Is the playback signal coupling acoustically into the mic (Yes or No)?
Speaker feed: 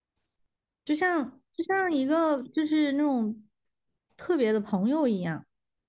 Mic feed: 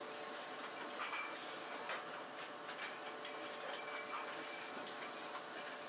No